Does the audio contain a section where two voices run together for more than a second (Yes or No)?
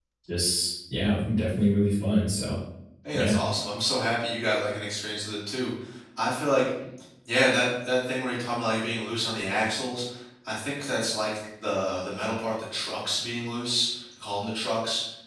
No